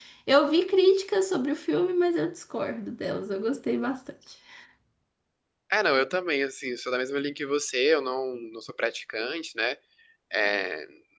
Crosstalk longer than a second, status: none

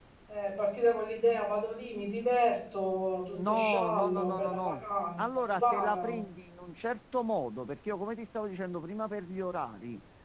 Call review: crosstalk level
present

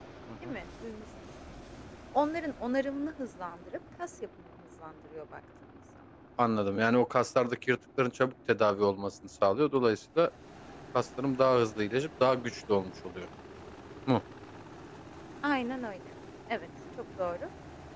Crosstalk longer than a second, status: none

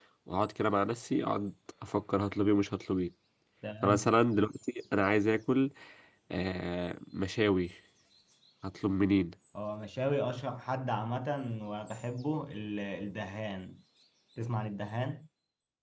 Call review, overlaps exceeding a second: none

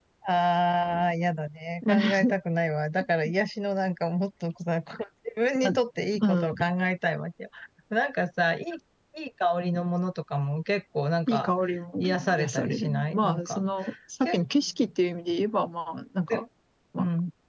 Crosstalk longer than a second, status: present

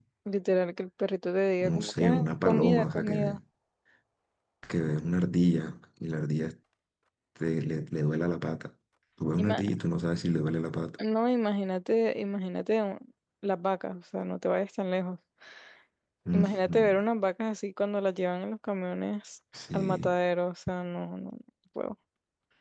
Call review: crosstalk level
present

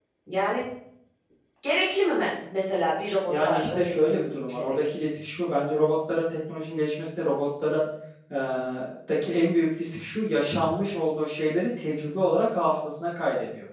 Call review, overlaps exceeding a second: present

